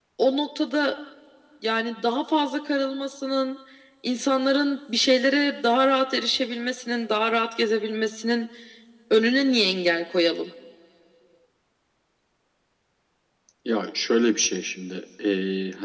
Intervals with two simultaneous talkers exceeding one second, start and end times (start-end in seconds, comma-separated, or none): none